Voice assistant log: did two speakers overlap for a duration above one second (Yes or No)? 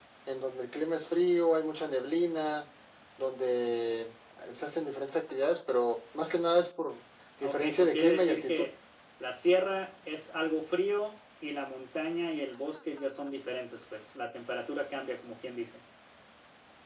Yes